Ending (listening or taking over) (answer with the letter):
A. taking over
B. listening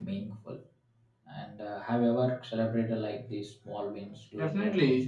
A